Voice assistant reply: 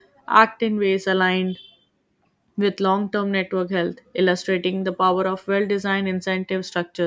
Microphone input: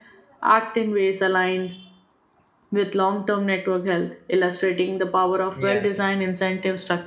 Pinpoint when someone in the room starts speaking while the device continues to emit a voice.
5.5 s

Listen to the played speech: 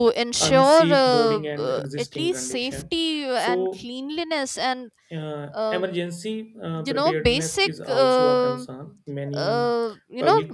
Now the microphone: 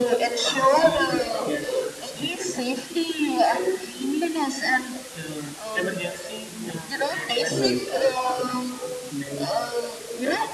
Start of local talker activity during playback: 7.5 s

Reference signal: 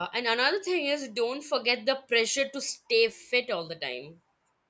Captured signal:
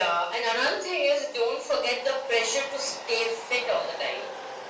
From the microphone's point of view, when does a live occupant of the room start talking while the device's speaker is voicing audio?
none

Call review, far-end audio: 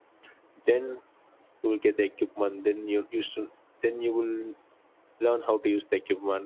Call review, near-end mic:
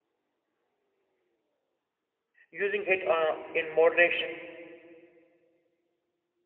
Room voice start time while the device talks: 2.5 s

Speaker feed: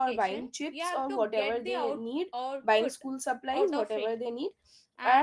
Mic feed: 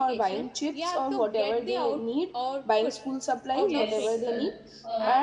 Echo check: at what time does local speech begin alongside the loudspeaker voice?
3.6 s

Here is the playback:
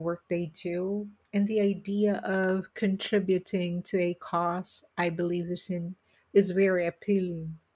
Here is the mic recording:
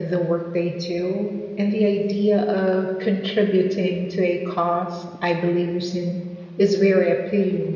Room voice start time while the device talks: none

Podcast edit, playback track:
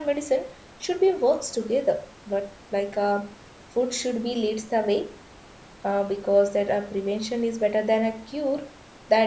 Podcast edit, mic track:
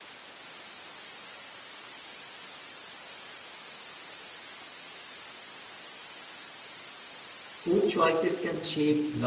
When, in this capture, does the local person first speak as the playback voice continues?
7.6 s

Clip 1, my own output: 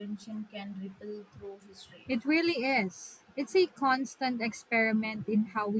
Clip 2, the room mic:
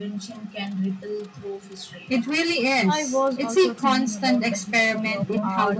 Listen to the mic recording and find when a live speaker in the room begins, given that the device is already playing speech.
2.9 s

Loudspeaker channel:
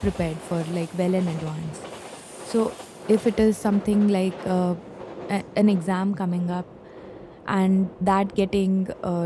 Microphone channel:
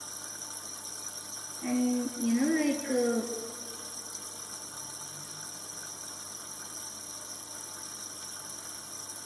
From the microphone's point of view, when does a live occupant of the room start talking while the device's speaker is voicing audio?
1.6 s

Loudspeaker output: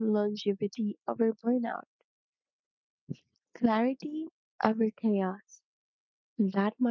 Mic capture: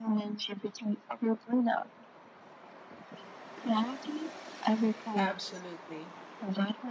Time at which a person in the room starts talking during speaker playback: 5.2 s

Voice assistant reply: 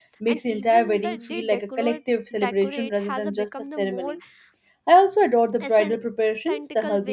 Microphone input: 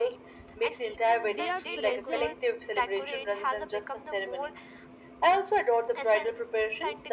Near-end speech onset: 1.3 s

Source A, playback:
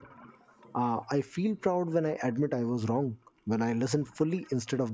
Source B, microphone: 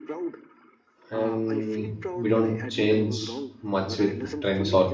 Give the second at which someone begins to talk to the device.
1.1 s

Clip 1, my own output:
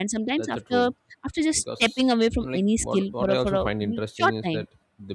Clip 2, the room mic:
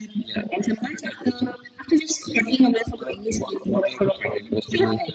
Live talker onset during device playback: none

